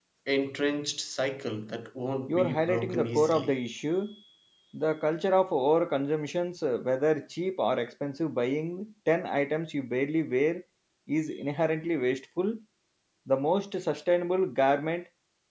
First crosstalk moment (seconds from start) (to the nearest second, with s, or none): 2 s